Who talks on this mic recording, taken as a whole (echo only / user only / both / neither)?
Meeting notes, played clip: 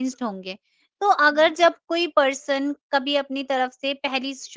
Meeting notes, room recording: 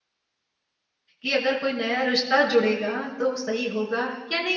user only